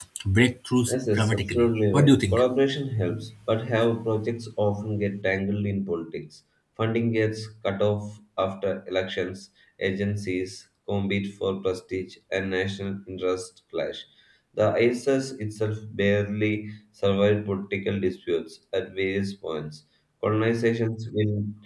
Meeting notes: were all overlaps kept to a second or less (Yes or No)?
No